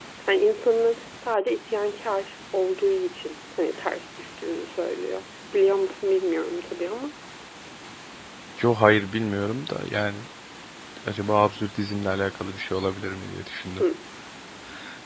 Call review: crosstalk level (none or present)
none